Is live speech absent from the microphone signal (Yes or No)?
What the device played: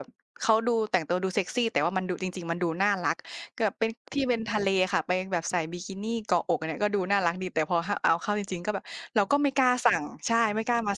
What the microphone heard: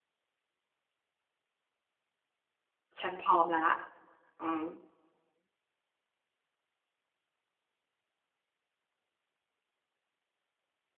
No